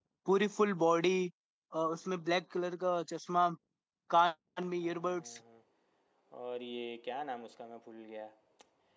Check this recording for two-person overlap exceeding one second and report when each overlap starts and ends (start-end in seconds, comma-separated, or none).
none